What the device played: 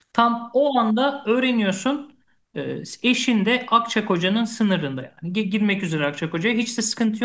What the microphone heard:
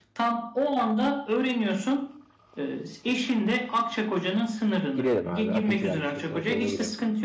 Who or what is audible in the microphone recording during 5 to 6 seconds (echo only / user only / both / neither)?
both